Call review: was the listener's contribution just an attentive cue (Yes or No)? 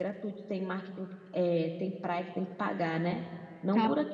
Yes